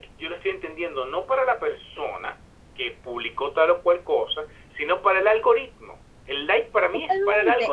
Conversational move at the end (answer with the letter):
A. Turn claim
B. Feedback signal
A